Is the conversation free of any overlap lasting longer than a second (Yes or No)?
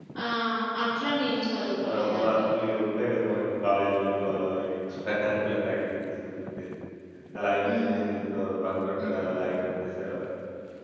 Yes